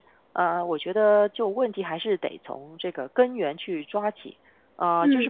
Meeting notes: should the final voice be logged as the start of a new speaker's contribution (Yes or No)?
No